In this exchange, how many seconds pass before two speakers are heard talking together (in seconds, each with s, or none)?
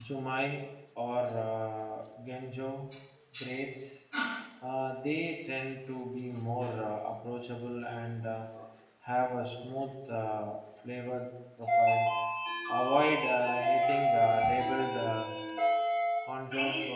none